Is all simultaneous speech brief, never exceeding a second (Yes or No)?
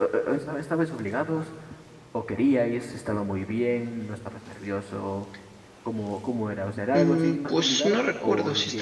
No